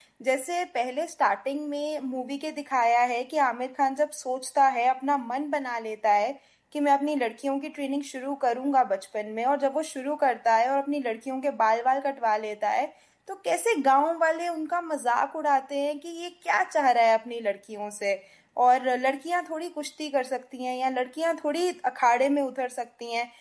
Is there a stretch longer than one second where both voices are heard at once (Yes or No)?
No